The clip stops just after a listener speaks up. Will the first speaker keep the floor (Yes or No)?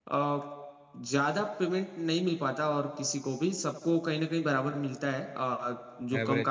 Yes